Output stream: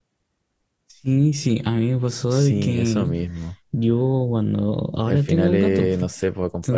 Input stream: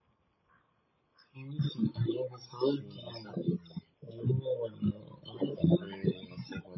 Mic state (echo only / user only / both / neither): echo only